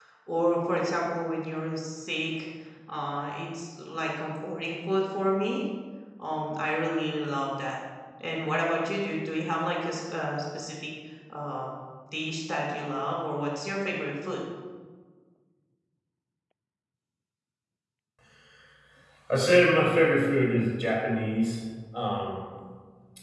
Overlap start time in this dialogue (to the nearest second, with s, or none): none